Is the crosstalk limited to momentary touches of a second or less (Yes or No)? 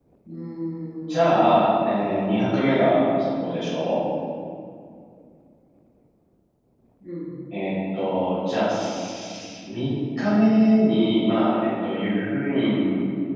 Yes